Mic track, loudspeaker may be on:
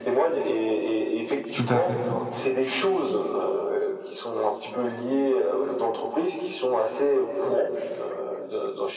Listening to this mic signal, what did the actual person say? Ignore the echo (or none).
tout à fait. ouais.